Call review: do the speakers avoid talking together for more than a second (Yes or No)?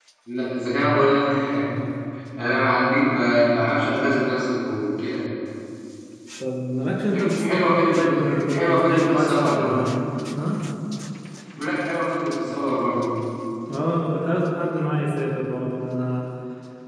No